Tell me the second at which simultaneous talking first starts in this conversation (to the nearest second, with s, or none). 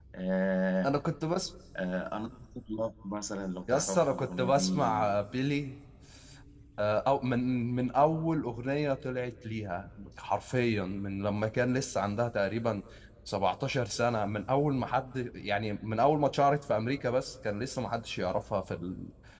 4 s